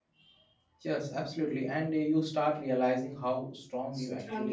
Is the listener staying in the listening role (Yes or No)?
No